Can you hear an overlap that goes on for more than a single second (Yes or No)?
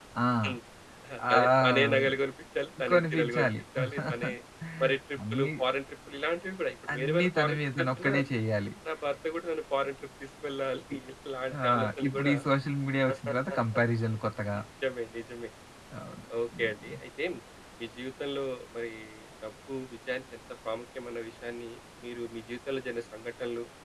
Yes